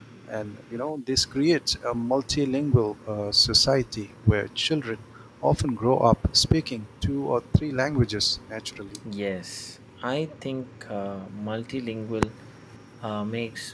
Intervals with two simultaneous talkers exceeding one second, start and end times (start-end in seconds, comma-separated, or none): none